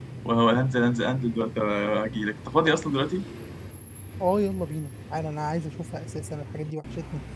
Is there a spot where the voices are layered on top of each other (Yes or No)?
No